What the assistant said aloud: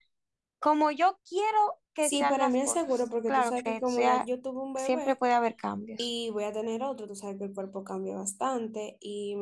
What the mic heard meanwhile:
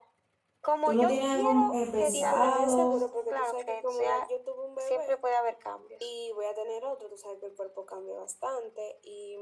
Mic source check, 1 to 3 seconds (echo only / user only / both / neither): both